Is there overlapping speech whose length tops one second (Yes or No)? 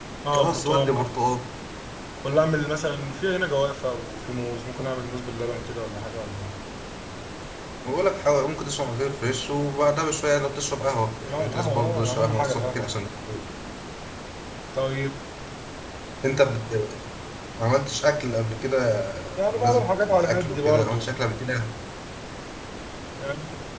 Yes